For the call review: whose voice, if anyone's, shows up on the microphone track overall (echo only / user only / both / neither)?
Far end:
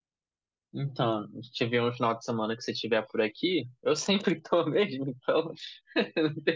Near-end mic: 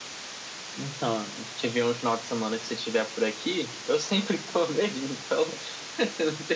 echo only